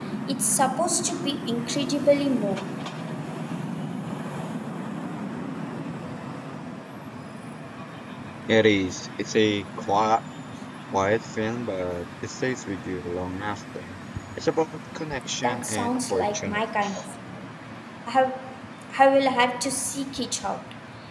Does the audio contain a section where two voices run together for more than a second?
Yes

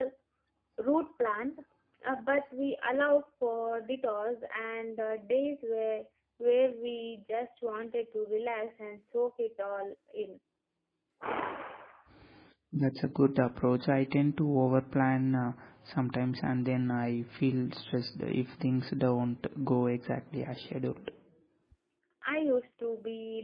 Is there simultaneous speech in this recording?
No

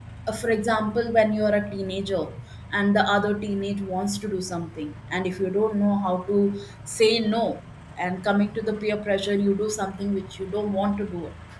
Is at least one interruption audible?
No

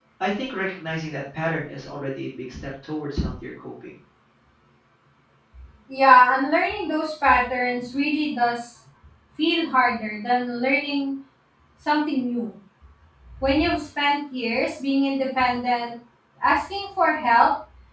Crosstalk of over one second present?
No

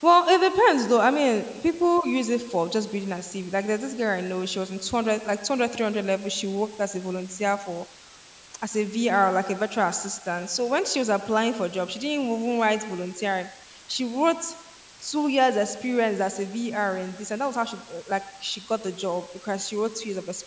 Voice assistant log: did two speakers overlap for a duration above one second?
No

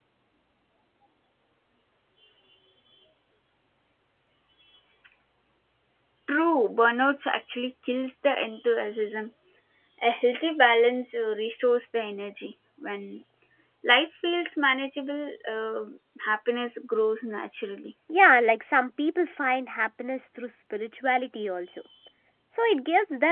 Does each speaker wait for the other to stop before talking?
Yes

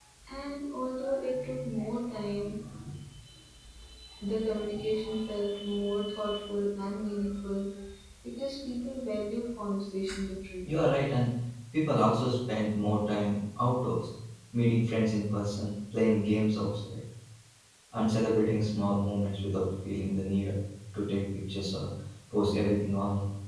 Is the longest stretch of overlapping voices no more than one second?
Yes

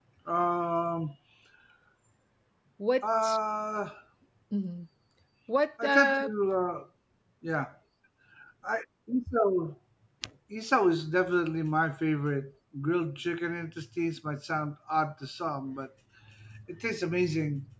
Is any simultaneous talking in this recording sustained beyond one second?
No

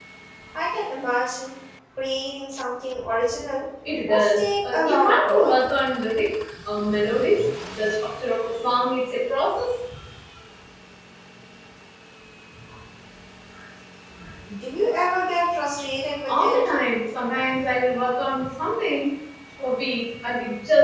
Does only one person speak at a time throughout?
No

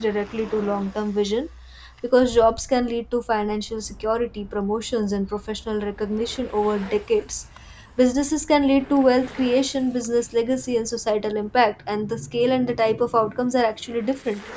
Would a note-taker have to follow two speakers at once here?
No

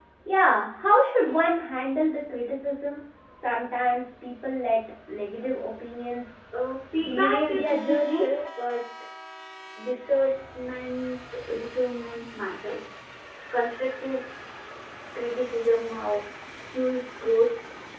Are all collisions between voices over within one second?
No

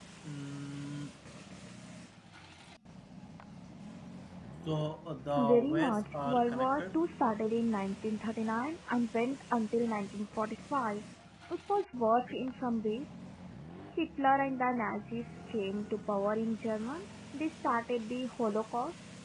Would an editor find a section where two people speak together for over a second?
Yes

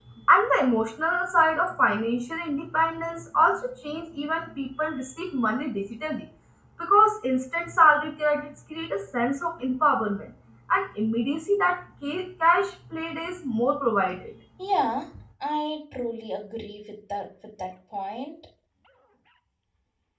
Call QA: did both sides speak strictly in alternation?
Yes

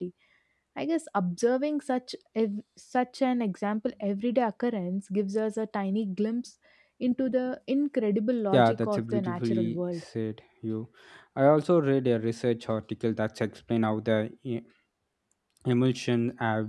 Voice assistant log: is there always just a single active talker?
No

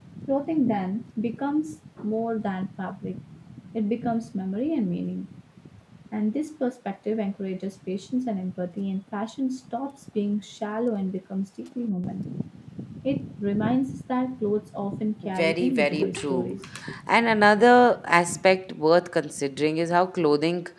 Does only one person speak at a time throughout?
No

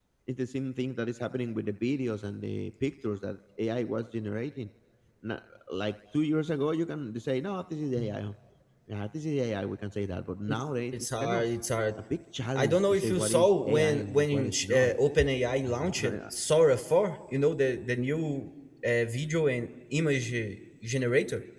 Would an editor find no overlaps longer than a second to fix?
No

